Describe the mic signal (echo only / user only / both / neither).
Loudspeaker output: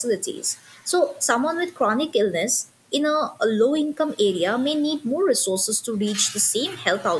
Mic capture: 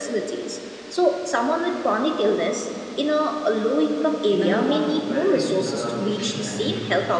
both